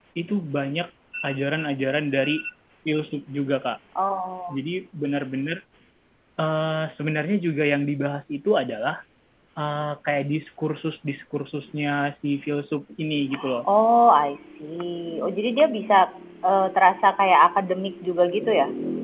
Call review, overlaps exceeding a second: none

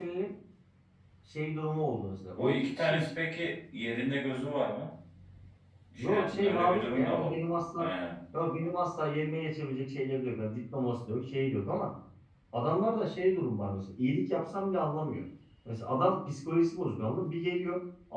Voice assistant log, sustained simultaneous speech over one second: present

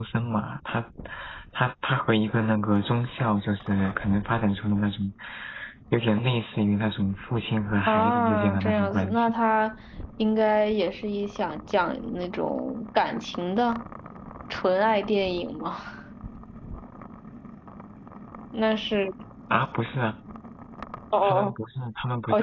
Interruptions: present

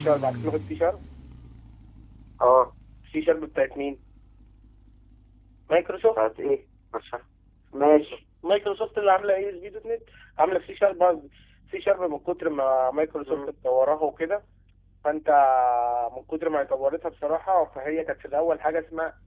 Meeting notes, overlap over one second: none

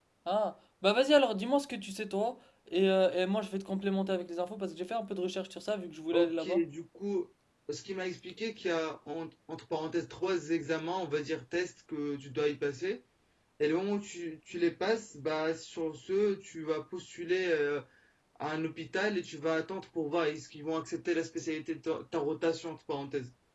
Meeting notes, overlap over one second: none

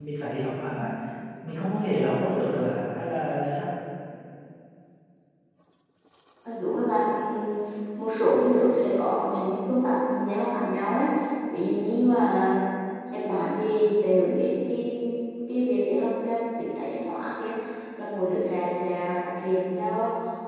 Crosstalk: none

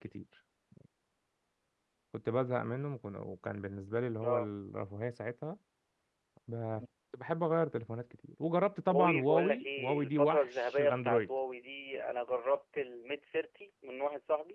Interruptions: present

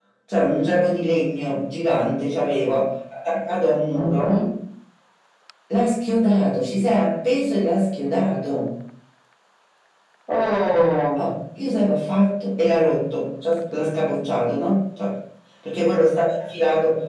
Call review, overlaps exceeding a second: none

